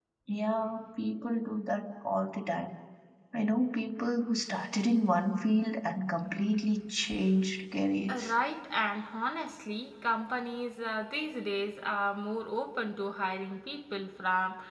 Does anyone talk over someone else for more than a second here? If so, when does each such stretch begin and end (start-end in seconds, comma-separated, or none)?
none